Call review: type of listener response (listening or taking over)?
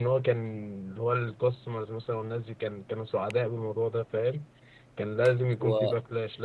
listening